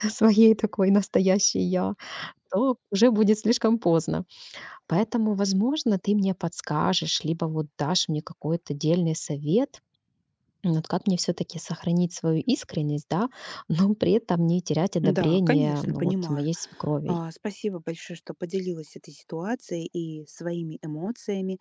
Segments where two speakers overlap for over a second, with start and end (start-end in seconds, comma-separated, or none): 15.0-16.5